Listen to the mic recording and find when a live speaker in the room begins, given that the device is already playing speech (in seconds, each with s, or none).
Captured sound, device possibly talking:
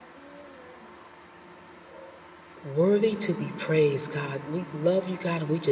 2.6 s